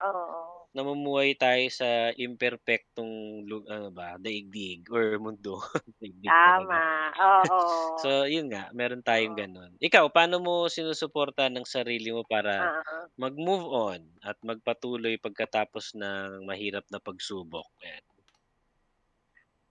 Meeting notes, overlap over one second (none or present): none